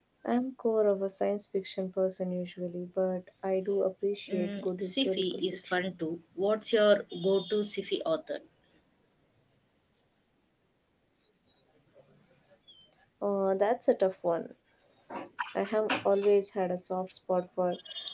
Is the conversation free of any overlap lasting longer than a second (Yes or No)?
No